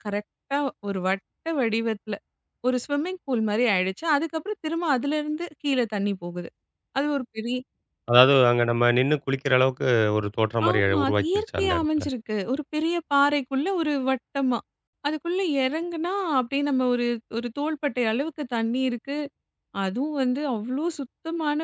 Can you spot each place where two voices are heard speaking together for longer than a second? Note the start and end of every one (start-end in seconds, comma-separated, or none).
10.7-12.1